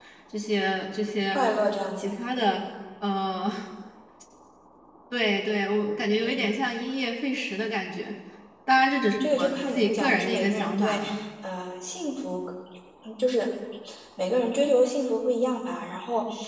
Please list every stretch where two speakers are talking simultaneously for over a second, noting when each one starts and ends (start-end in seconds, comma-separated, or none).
9.2-11.0